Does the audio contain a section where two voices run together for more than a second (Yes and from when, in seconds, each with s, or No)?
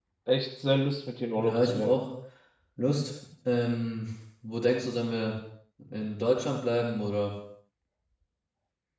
No